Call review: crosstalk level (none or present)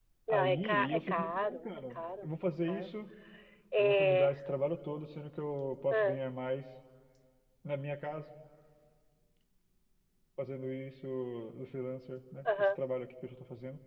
present